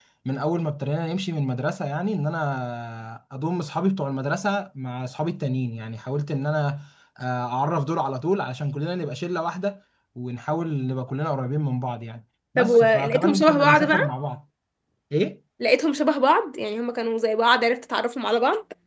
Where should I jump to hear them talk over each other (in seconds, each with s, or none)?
12.6 s